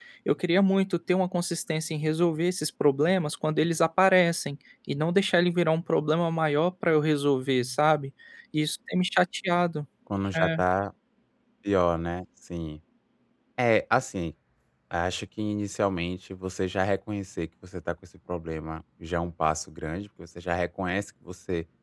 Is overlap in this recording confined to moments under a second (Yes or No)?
Yes